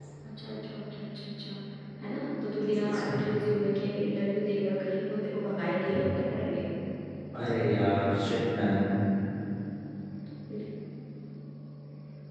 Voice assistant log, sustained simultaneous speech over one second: none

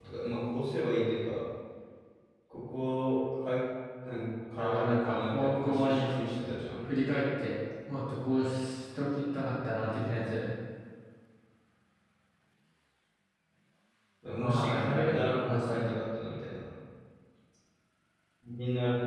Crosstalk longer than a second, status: present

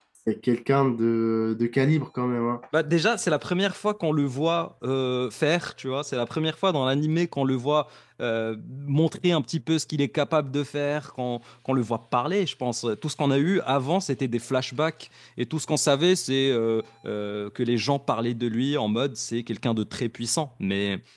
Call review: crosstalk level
none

